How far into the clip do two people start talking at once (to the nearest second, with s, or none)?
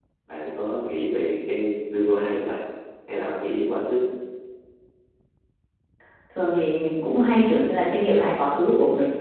none